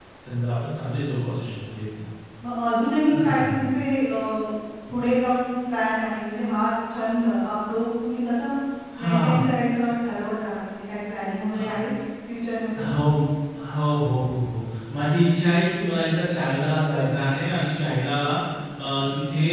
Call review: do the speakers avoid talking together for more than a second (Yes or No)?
Yes